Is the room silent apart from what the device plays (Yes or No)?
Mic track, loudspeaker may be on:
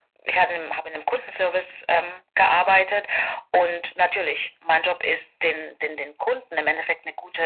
Yes